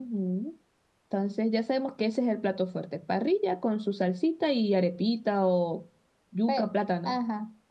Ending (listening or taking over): taking over